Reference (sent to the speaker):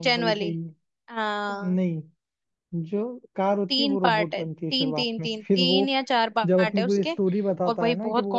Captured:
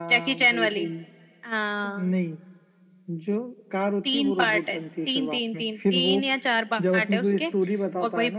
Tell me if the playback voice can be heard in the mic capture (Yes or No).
Yes